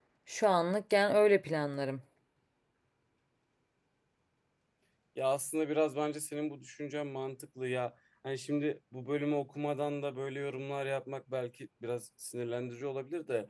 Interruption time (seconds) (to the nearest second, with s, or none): none